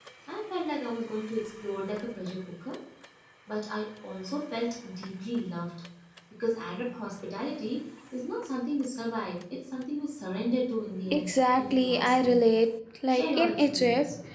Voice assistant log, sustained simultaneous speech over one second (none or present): present